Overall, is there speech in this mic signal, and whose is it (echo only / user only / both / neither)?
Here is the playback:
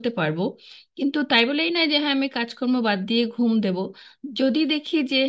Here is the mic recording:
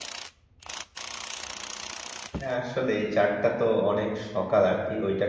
user only